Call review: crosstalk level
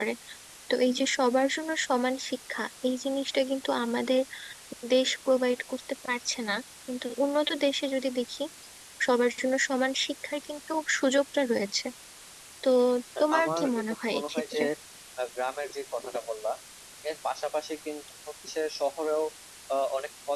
present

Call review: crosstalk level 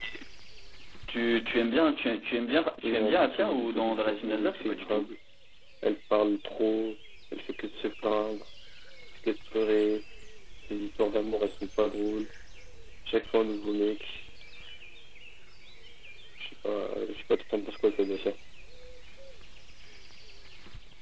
present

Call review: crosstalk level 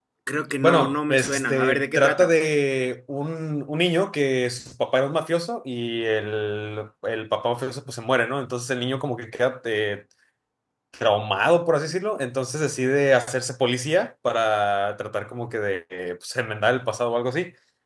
present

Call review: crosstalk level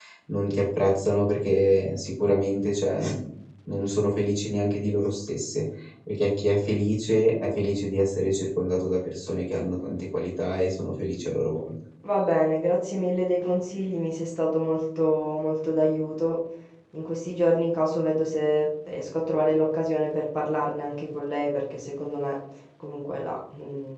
none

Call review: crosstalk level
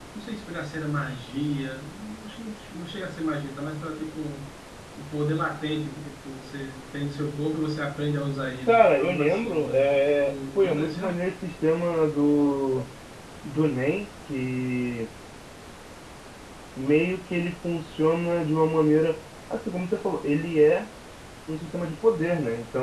present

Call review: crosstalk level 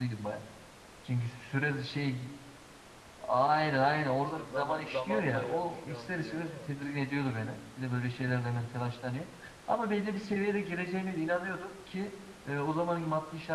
present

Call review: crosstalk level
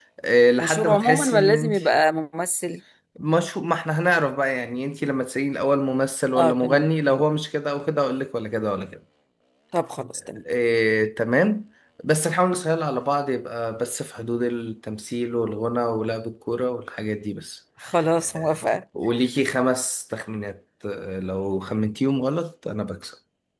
present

